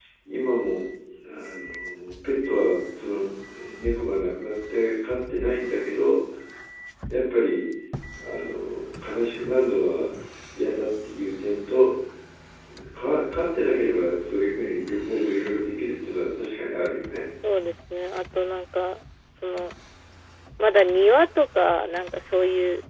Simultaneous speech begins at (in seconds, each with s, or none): none